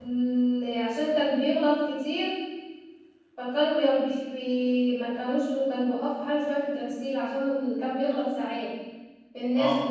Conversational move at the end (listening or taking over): taking over